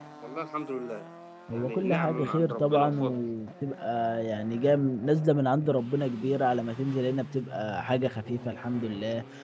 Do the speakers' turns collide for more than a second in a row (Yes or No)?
Yes